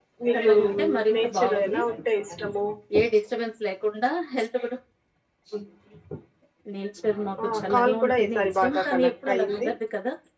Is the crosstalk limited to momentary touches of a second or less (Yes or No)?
No